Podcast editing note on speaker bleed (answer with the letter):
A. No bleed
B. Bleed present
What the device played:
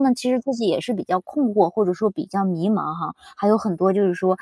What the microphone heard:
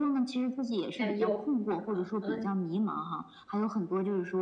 B